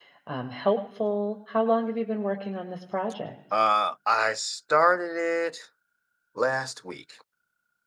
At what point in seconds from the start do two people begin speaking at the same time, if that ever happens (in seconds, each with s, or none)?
none